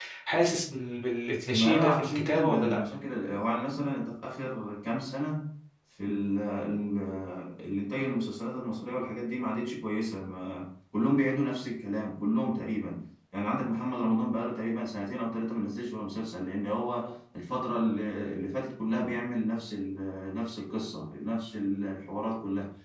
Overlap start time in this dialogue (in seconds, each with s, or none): 1.5 s